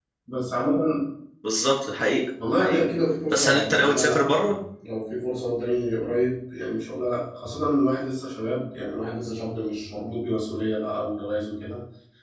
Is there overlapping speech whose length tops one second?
Yes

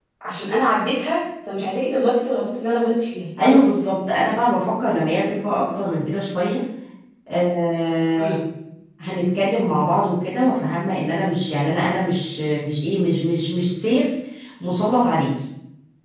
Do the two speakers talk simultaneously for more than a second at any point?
No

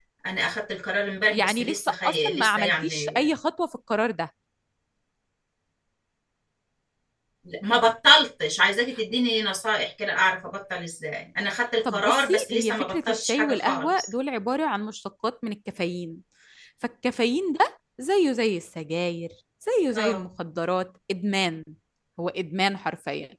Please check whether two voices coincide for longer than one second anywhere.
Yes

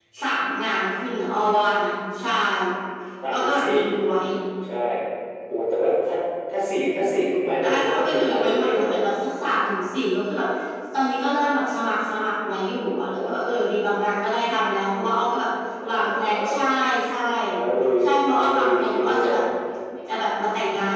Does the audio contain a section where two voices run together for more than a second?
Yes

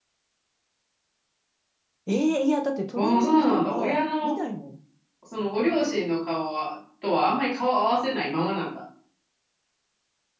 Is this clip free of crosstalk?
No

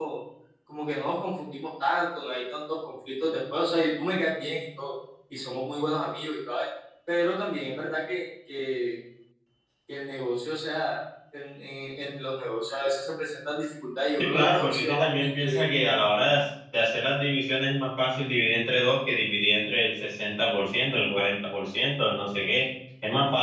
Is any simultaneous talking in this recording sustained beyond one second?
Yes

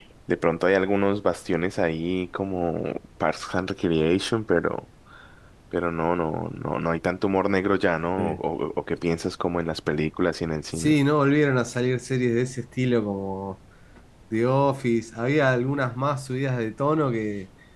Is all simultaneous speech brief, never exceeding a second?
Yes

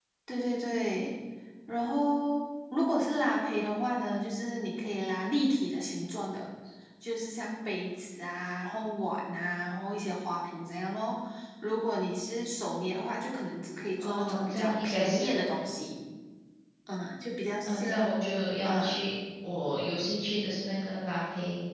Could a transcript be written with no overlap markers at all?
No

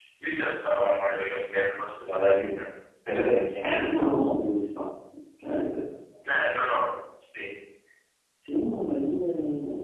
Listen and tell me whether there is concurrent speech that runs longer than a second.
No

